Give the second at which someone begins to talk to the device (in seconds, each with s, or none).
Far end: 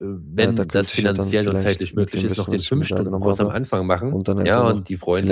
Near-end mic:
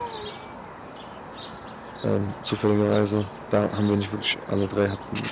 2.0 s